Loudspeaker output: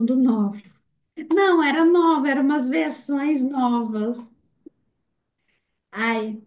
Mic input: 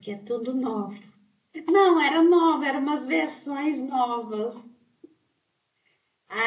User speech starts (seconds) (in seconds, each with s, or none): none